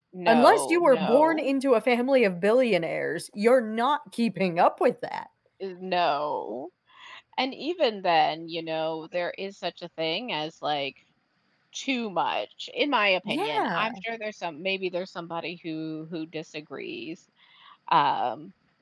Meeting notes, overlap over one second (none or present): present